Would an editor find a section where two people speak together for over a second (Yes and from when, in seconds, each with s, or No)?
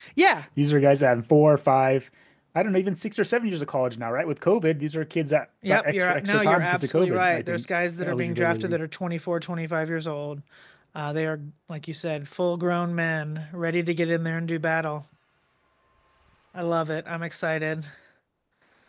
Yes, from 5.6 s